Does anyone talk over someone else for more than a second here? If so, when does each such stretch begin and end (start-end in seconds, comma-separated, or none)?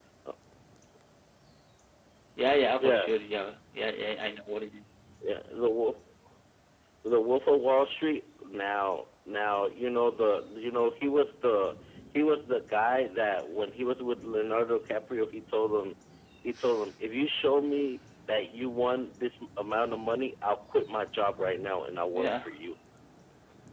none